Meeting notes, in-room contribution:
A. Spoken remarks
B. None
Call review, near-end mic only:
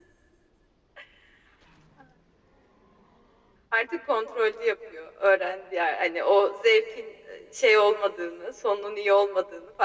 B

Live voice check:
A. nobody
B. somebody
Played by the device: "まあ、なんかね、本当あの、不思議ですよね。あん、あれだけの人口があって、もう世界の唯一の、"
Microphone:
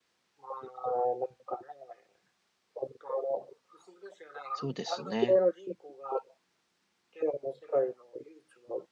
B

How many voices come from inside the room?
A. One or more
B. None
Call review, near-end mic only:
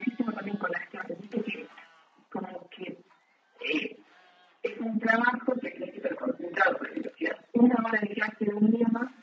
B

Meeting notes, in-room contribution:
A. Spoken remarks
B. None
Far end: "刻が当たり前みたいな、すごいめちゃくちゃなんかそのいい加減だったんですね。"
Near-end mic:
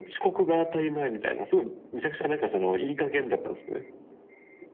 B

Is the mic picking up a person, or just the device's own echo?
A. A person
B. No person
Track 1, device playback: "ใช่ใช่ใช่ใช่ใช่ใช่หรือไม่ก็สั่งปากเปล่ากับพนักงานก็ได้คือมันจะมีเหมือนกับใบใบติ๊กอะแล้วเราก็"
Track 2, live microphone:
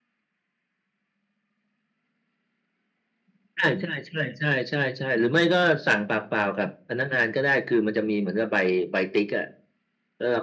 B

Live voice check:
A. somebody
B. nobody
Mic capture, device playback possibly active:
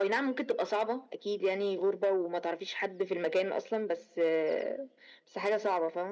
B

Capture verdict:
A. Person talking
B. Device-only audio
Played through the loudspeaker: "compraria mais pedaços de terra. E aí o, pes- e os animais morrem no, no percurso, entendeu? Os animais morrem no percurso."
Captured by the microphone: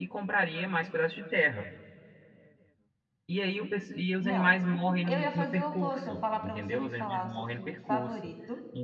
A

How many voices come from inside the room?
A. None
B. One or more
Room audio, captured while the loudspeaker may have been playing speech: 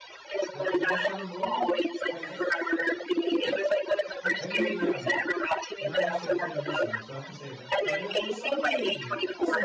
B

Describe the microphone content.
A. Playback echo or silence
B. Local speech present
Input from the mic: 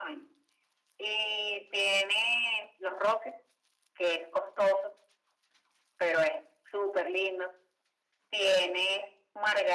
A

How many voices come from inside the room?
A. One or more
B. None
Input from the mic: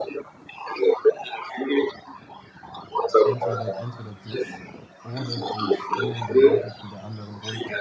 A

